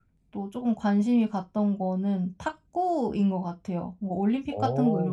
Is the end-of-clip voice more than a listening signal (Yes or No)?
No